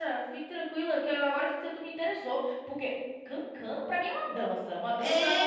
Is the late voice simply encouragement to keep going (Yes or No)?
No